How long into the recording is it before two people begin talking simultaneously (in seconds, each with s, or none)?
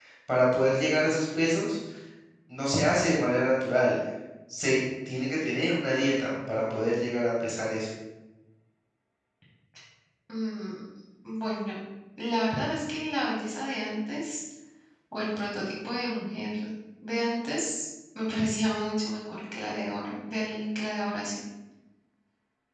none